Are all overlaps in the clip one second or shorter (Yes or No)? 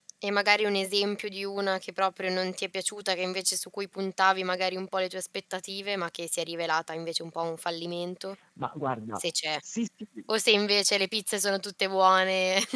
Yes